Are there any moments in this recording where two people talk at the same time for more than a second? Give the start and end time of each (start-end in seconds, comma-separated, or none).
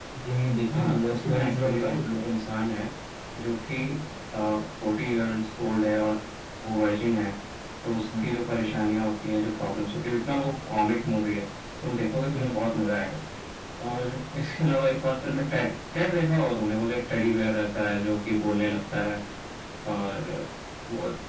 0.7-2.2